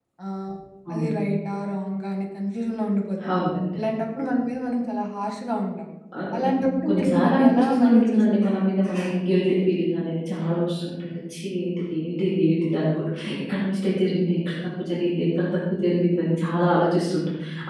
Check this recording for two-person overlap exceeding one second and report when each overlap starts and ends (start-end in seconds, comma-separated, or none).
6.9-8.8